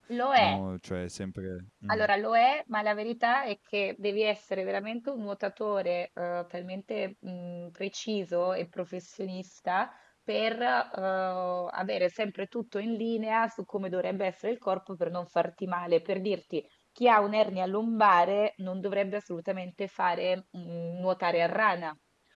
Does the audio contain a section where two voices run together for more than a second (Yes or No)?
No